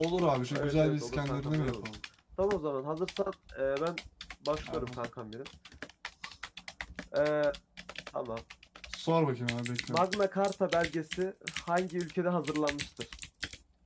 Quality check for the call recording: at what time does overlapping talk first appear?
1 s

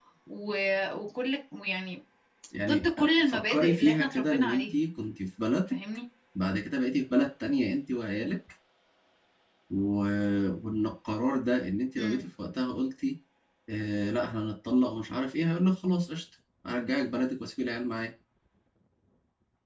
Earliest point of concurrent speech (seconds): 3 s

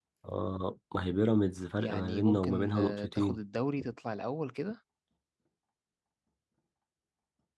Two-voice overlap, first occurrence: 2 s

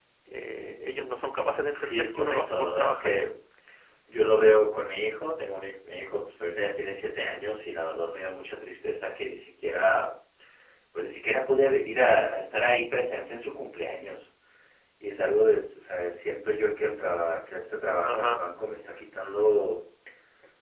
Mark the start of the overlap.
2 s

